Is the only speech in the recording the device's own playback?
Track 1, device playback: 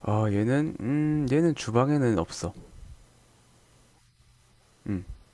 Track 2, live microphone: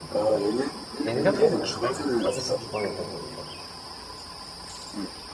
No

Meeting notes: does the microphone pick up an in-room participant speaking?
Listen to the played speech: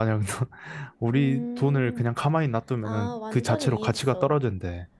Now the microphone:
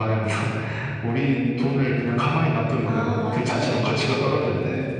No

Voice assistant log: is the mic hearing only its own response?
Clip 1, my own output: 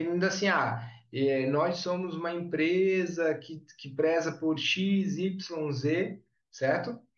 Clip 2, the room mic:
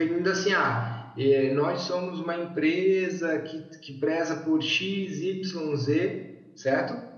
Yes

